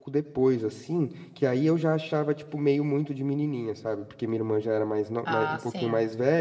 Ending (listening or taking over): listening